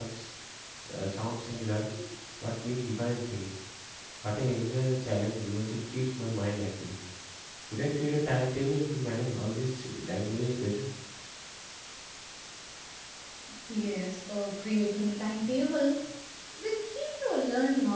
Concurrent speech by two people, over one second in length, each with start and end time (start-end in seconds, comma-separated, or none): none